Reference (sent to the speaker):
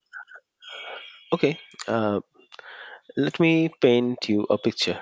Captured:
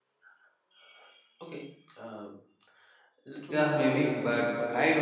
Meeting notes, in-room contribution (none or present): present